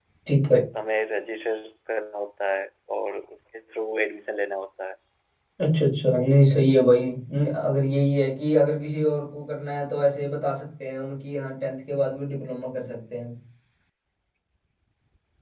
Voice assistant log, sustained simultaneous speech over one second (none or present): none